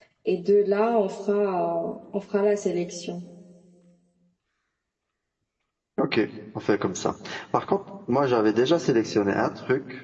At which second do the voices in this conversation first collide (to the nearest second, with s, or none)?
none